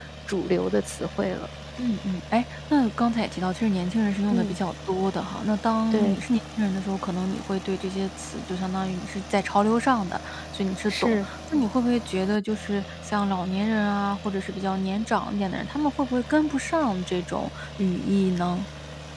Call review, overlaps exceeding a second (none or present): none